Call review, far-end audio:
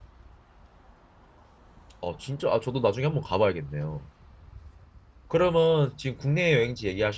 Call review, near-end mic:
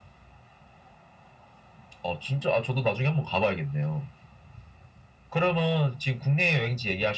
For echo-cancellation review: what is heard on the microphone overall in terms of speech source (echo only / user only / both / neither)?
echo only